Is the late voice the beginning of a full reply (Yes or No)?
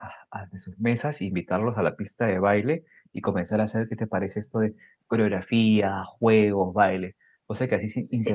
Yes